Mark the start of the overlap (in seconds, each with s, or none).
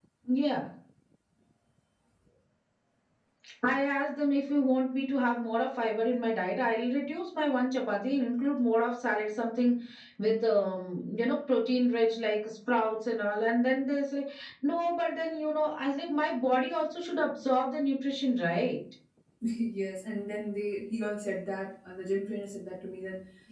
none